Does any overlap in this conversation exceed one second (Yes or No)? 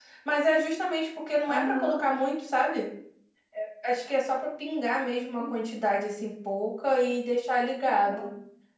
No